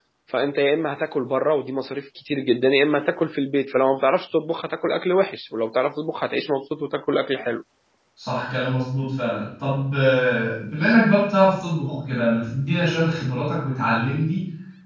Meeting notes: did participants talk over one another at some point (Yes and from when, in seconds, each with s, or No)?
No